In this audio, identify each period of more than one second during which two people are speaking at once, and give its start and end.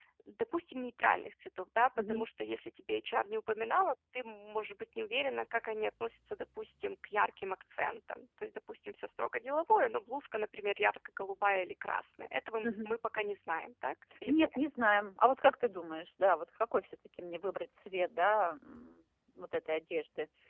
none

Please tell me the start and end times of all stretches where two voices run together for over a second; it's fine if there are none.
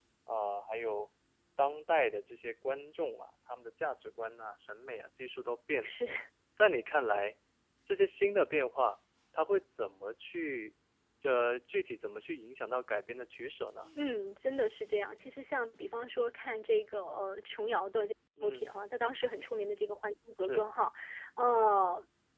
none

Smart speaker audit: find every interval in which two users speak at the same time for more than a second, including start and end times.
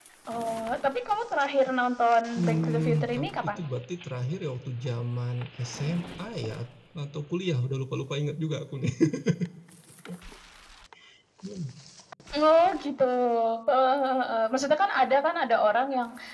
2.4-3.6

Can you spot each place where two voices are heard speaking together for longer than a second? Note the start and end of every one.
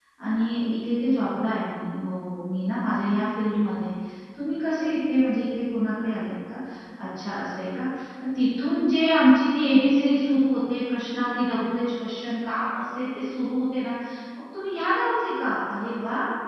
none

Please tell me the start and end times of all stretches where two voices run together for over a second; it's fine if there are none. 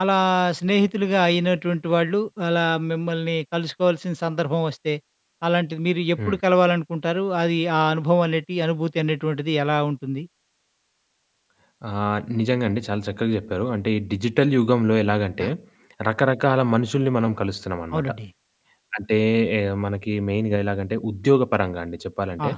none

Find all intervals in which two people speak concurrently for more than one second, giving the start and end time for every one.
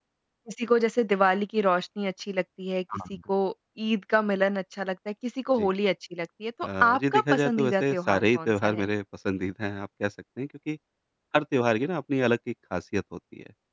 6.6-8.9

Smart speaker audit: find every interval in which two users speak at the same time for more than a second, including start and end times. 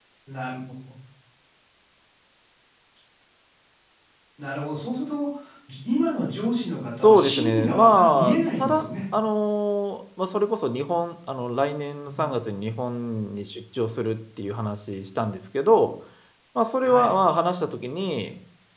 7.0-8.9

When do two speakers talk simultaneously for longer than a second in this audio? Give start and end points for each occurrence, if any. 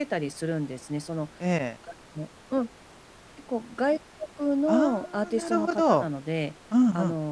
4.7-6.0

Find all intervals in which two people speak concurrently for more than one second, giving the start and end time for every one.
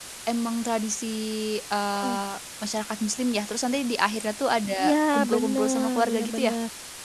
5.3-6.5

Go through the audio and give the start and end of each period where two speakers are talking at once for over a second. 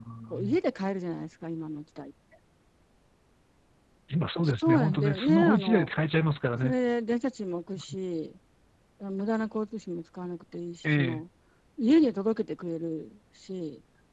4.4-5.9

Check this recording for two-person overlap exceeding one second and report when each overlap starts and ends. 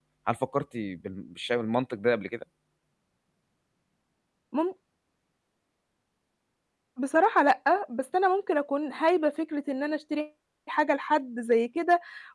none

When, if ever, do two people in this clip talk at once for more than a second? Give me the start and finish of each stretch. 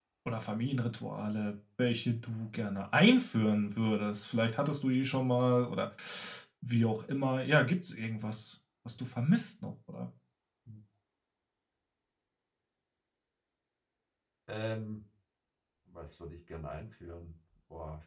none

